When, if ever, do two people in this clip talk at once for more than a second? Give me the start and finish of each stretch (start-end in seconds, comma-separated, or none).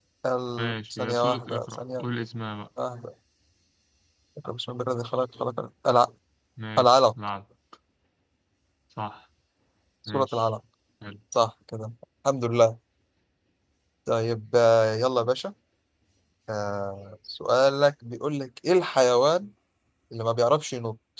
0.6-2.0